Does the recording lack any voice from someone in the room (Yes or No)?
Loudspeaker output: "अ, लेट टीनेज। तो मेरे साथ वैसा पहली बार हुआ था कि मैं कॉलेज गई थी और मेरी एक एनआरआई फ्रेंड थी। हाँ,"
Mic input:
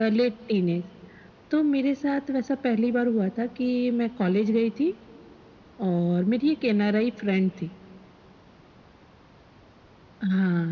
Yes